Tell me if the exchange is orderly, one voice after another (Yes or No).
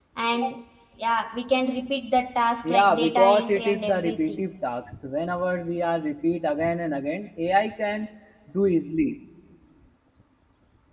No